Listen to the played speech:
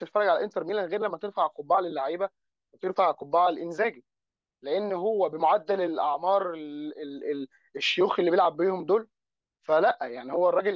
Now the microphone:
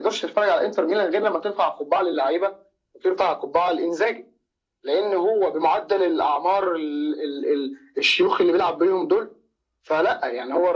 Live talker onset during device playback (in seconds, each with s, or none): none